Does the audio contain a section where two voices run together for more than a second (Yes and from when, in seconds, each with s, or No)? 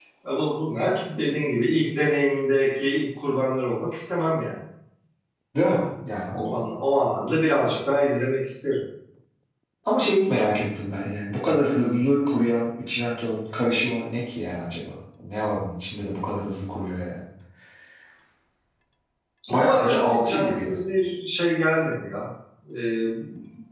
Yes, from 19.5 s